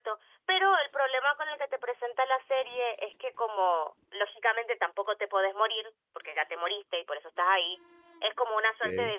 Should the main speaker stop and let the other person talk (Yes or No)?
No